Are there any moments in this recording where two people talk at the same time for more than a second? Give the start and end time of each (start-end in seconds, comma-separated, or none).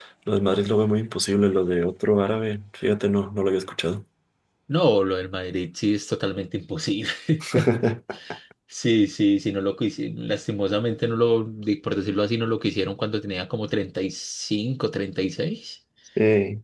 none